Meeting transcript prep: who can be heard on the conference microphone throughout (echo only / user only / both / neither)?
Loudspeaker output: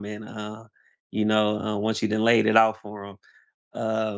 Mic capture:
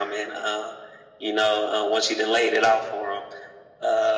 echo only